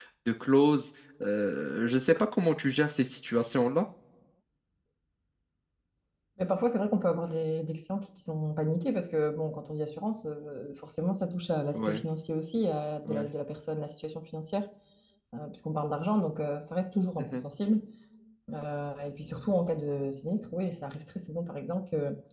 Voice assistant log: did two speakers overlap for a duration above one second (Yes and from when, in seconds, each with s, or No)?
No